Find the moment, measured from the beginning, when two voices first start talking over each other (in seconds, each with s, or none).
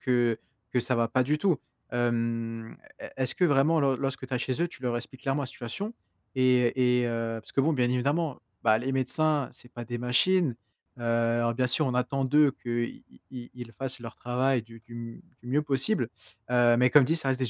none